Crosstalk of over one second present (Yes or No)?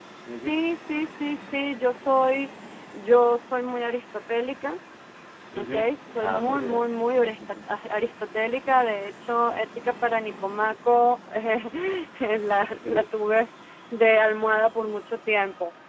Yes